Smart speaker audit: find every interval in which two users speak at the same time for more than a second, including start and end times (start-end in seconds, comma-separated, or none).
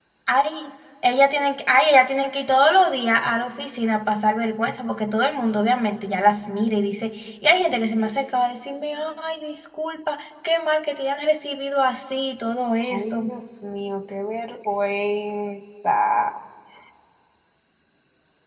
none